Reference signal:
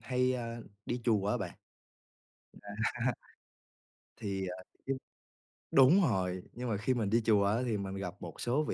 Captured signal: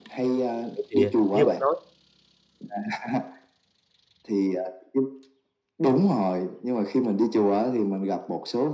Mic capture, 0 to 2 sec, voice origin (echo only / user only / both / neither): both